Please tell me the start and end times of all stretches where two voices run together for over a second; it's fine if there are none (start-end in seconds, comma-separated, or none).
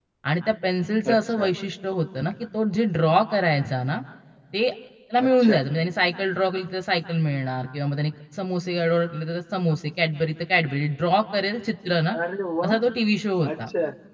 none